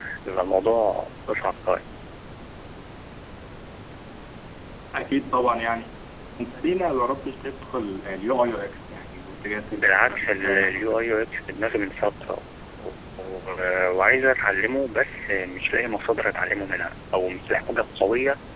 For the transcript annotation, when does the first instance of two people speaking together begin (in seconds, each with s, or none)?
9.7 s